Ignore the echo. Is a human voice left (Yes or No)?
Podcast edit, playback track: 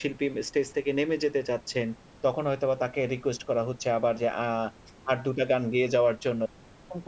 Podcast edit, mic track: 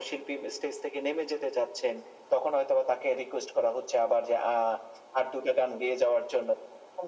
No